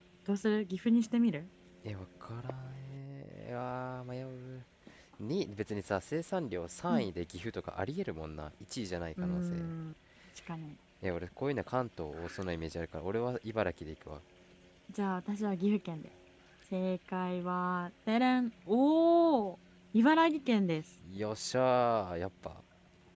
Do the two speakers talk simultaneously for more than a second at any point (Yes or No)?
No